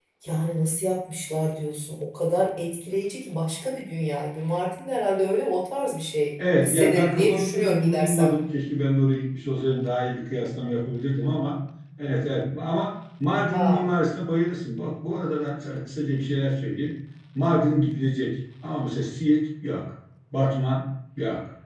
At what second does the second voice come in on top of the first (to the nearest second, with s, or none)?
7 s